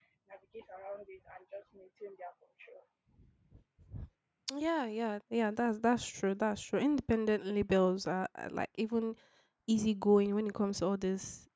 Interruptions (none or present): none